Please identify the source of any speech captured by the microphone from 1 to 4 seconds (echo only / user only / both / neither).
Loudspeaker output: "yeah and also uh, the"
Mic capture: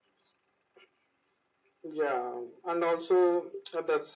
echo only